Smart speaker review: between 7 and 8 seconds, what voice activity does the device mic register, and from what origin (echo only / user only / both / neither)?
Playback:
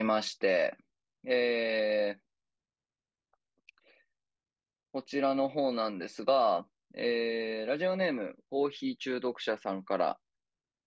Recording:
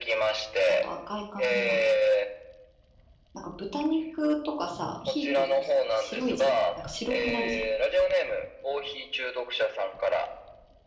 both